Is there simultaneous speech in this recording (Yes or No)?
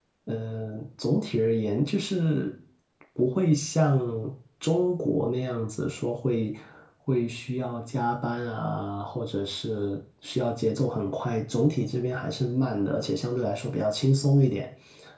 No